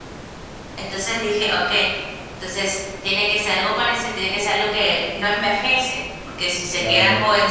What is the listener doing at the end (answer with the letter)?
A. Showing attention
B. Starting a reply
A